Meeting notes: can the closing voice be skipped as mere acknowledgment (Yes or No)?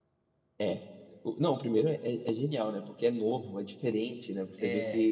Yes